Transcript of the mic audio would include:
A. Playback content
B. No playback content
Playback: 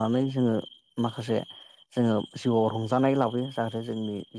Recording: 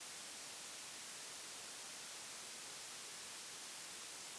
B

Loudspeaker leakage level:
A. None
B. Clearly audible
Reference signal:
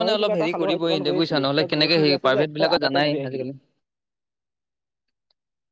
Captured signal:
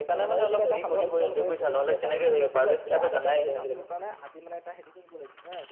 B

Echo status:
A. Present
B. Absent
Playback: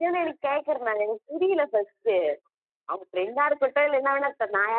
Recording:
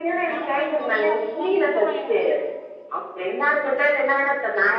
A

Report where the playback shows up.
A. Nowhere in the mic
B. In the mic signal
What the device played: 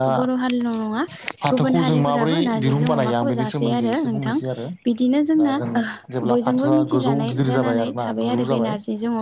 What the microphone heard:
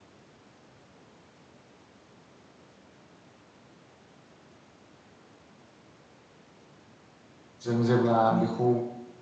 A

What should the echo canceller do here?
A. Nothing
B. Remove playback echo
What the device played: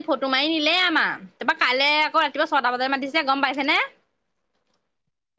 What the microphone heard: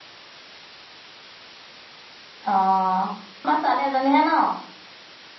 A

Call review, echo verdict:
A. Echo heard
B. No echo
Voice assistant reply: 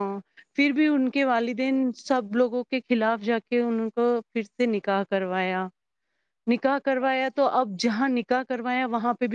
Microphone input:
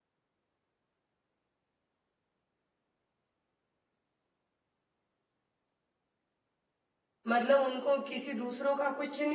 B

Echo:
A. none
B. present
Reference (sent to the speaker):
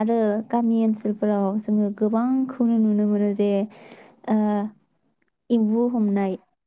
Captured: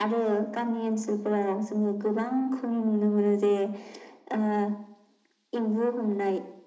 B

